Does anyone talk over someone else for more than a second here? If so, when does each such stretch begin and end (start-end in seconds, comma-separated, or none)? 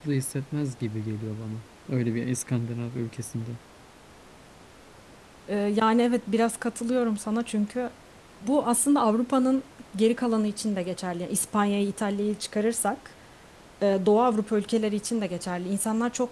none